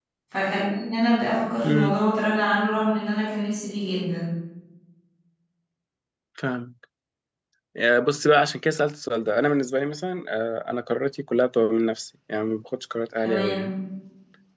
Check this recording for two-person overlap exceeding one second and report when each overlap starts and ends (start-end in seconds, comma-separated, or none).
none